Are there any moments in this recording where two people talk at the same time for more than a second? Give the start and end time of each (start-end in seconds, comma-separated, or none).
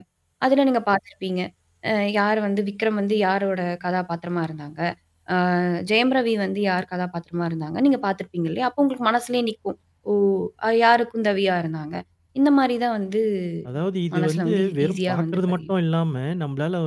14.2-15.7